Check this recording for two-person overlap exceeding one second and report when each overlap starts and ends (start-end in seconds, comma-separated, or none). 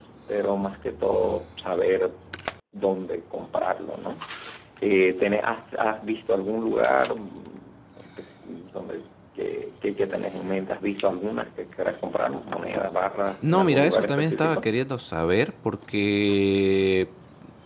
13.5-14.7